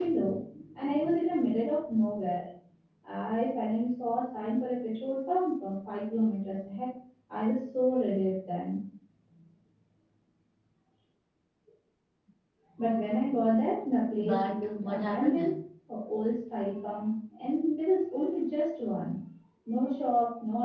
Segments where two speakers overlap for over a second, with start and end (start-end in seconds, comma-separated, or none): 14.2-15.6